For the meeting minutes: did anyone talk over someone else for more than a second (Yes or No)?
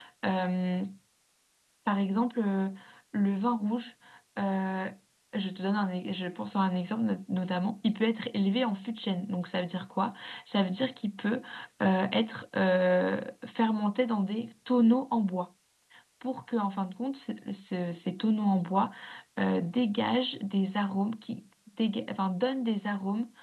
No